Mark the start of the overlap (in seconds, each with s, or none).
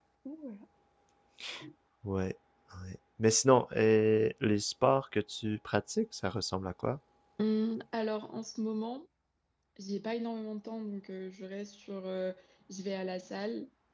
none